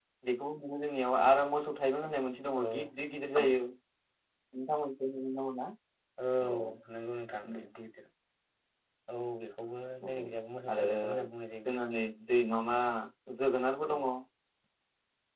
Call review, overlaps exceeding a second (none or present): none